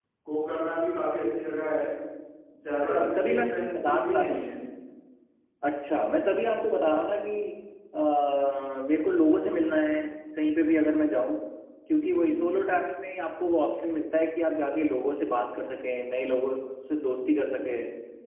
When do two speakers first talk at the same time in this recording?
2.8 s

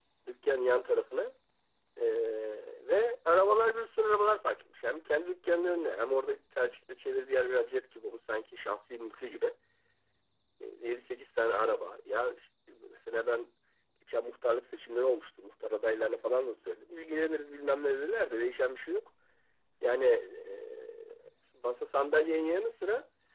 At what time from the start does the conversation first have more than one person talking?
none

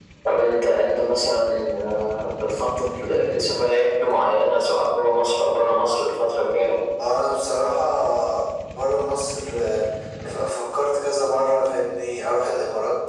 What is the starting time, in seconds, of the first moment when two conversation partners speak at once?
none

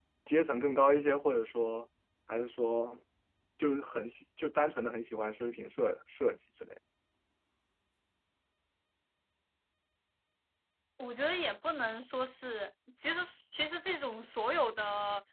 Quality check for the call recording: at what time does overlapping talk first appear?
none

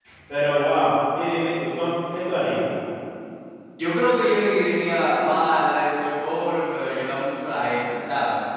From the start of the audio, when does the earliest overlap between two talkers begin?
none

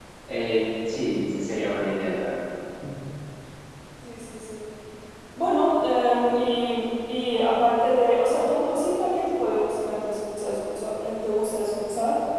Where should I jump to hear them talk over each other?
none

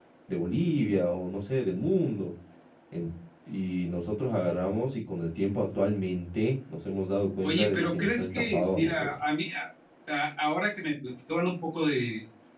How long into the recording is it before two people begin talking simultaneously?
7.4 s

